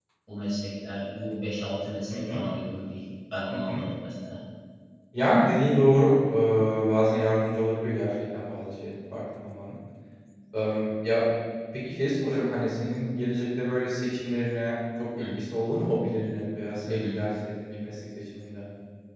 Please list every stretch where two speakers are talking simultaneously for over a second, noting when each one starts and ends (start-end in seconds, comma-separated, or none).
none